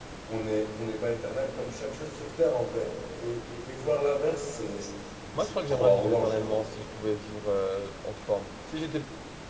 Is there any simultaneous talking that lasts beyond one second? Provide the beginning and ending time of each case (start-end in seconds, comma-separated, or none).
5.4-6.7